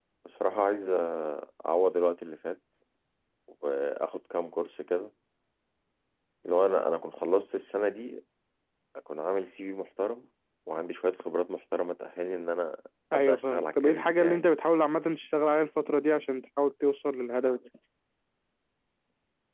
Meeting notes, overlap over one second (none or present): present